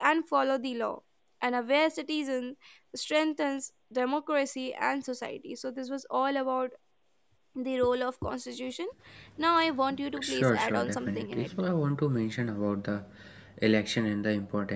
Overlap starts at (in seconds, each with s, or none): 10.2 s